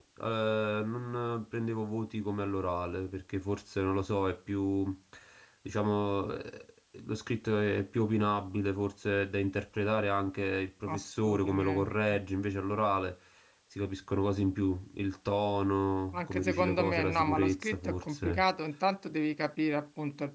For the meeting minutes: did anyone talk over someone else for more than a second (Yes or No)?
Yes